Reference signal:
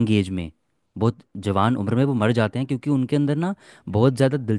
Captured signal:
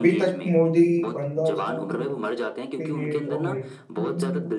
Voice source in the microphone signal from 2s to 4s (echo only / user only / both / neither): both